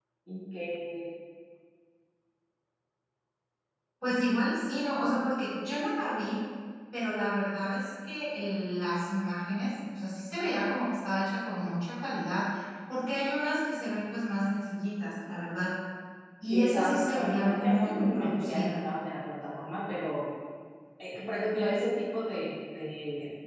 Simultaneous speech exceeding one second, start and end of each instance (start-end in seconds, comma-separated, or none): 16.5-18.8